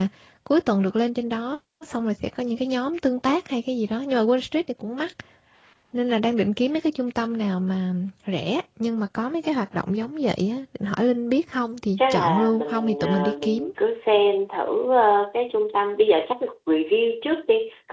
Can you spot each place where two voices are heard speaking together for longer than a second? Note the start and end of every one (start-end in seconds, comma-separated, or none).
12.0-13.7